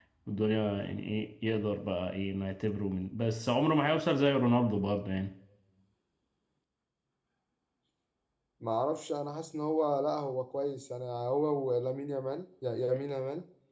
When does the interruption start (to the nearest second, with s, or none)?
none